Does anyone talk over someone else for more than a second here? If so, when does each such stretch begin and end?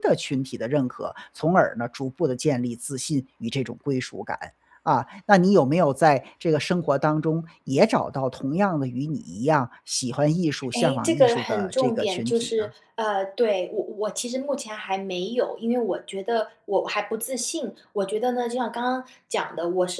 10.7-12.7

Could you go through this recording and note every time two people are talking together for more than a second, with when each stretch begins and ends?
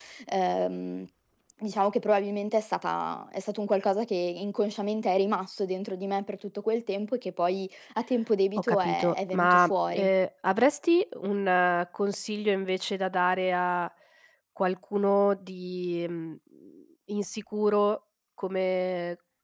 8.6-10.1

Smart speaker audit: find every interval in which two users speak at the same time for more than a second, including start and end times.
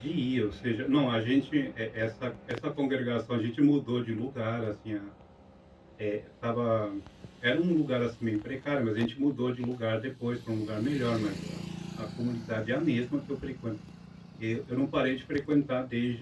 none

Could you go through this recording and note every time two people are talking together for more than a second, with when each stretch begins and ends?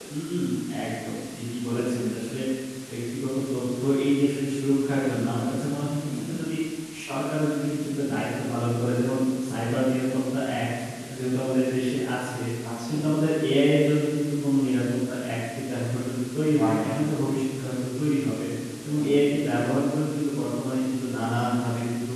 none

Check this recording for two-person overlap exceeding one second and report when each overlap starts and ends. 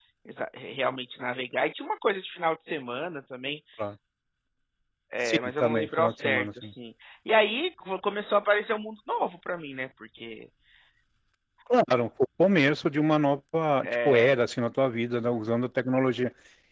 5.2-6.7

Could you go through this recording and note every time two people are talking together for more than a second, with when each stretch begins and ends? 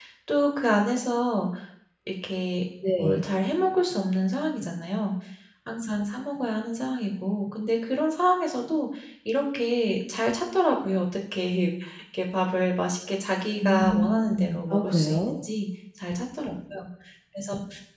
13.6-15.3

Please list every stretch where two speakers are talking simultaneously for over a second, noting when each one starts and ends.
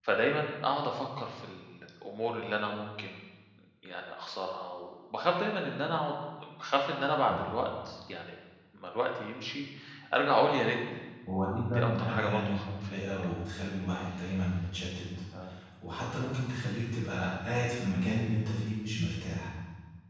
11.7-13.3

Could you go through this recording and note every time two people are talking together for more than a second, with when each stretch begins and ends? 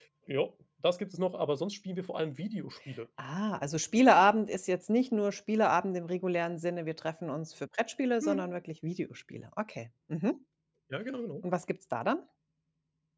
none

